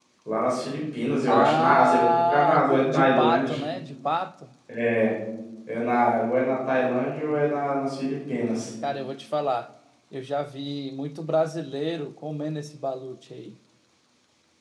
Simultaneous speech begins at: 1.3 s

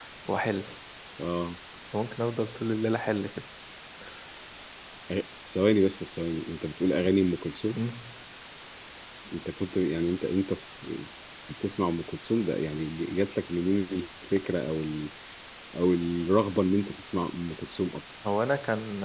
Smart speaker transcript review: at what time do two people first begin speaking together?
none

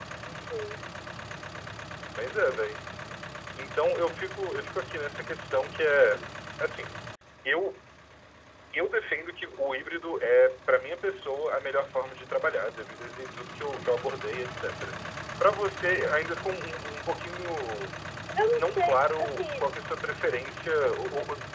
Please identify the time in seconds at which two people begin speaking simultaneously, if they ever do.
18.4 s

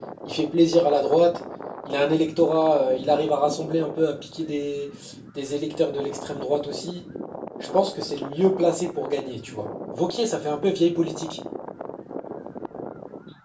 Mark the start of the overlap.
none

